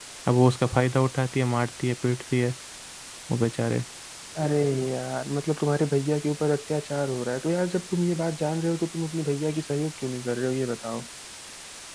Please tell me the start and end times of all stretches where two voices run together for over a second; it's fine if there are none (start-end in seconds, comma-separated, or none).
none